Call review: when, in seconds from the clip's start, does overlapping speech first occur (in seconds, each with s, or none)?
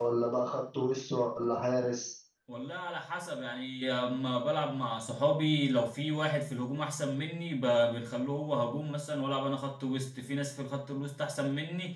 none